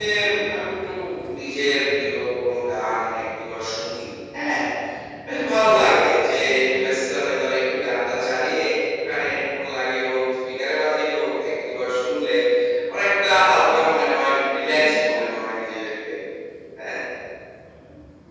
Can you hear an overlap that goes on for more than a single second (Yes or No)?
No